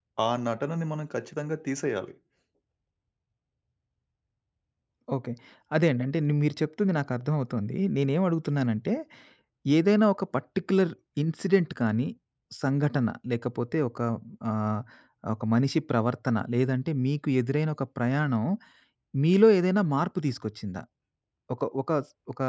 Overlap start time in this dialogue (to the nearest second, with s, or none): none